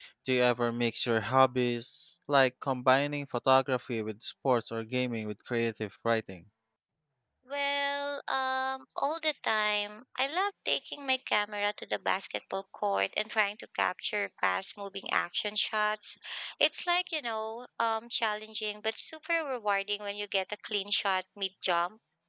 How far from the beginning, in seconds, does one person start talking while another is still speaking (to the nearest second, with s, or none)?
none